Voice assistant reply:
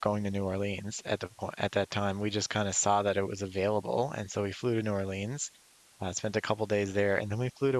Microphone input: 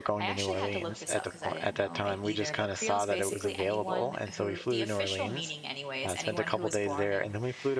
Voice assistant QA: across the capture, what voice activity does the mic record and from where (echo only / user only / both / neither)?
both